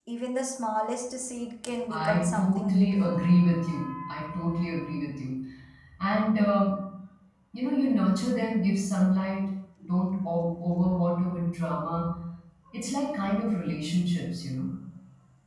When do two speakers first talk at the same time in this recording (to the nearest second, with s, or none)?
2 s